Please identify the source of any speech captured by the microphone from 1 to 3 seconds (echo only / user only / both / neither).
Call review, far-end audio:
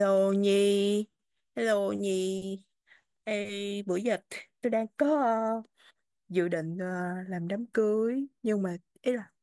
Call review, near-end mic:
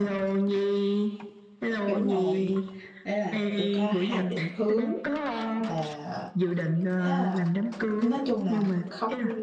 both